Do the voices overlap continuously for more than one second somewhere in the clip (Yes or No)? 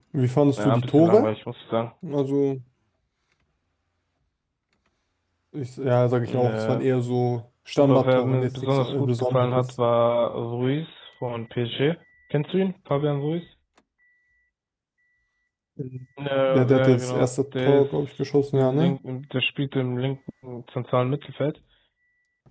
Yes